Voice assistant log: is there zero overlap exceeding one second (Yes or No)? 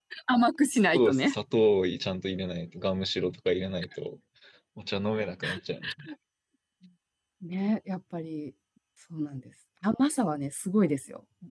Yes